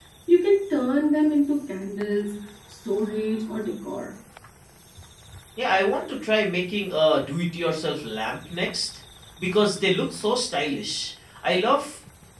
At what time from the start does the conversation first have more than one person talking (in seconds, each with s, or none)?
none